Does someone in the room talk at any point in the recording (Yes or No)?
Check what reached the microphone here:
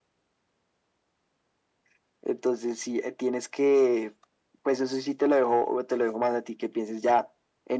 No